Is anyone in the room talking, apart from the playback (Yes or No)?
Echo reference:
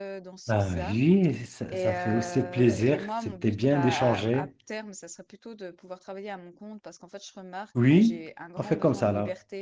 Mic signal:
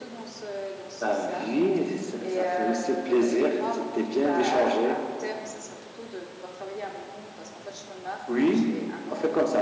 No